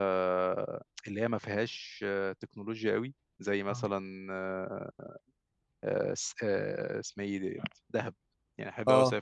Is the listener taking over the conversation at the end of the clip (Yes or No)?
No